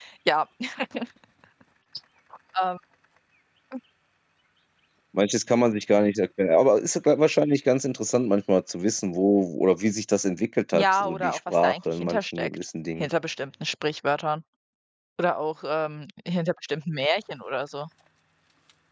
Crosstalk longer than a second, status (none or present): present